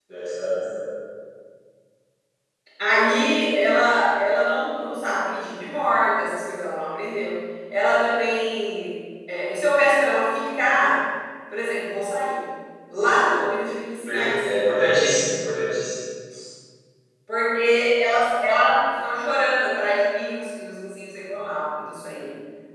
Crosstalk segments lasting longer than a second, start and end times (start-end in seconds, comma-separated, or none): 14.1-15.3